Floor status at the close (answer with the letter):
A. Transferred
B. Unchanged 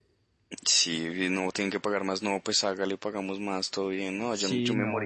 A